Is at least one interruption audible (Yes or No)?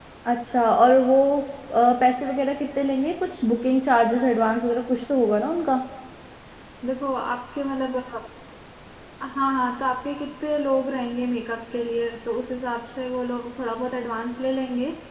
No